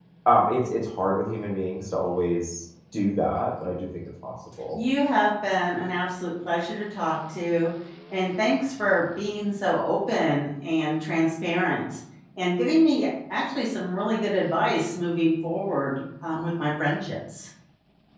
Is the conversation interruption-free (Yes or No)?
Yes